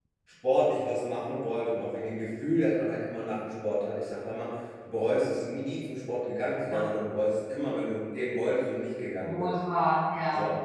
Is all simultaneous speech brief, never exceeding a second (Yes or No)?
Yes